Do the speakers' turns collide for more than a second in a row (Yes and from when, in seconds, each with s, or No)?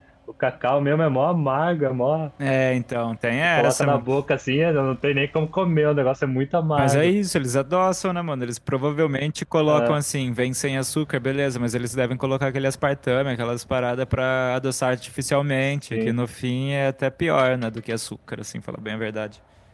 No